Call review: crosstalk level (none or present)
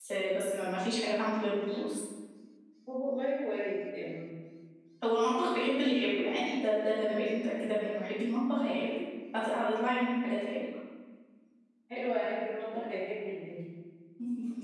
none